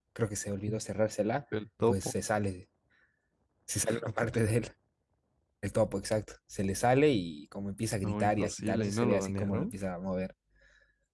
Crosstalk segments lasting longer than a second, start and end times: 8.0-9.7

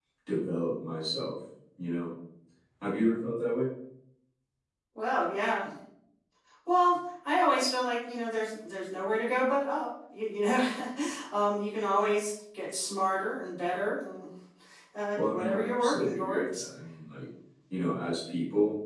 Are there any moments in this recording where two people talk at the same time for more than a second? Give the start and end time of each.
15.2-16.6

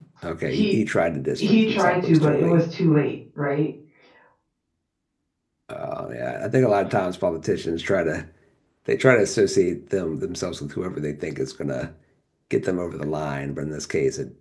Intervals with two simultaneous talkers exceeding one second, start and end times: 1.4-2.6

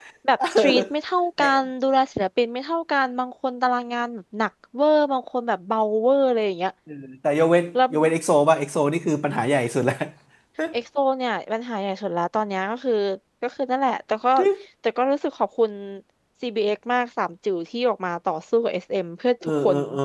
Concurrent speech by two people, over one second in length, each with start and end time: none

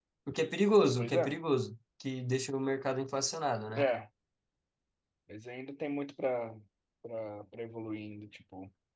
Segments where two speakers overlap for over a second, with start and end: none

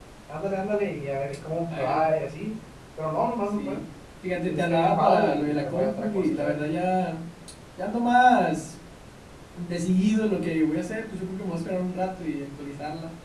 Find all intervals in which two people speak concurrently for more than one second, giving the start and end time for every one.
4.5-6.6

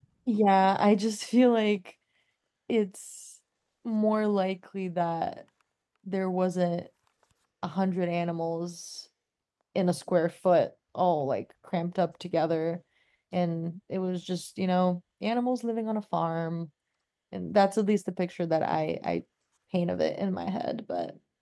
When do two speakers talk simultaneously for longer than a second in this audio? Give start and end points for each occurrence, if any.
none

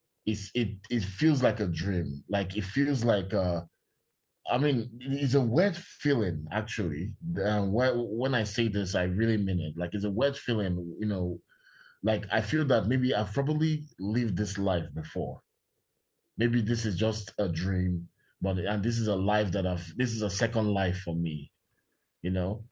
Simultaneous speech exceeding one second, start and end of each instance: none

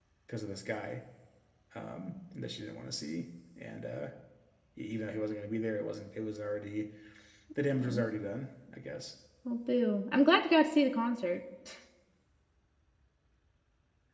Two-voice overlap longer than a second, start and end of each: none

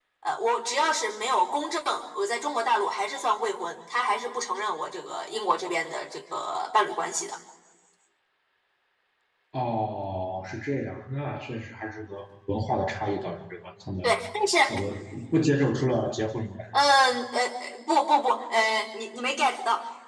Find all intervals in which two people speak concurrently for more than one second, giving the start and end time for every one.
none

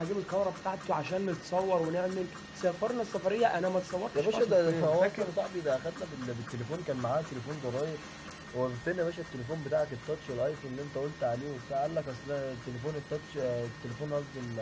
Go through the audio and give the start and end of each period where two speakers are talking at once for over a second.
4.1-5.3

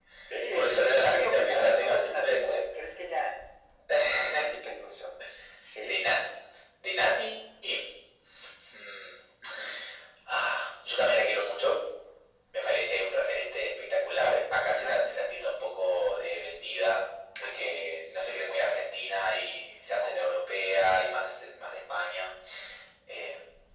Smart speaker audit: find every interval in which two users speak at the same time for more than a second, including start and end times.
0.5-2.6

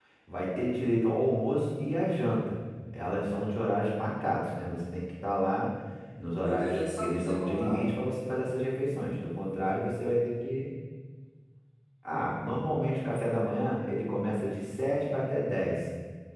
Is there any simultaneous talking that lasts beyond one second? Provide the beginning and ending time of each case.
6.4-7.9

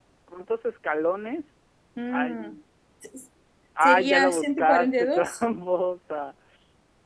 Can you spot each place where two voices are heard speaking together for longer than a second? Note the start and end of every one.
3.8-5.4

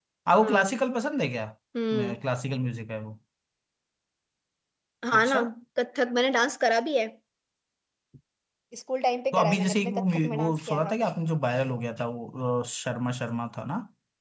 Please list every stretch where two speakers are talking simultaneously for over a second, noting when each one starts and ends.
9.3-11.0

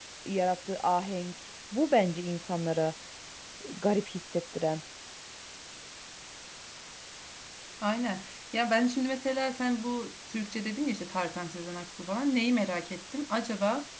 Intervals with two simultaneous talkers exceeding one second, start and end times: none

